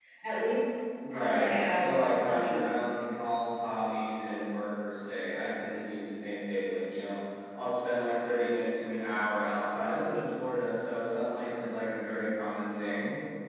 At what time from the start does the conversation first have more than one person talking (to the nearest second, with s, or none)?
1 s